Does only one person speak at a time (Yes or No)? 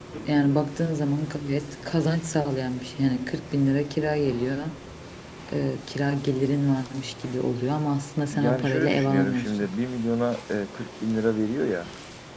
No